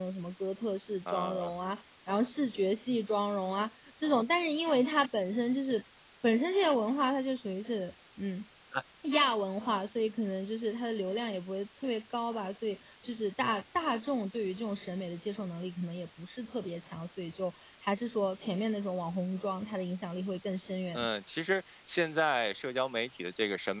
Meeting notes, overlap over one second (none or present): none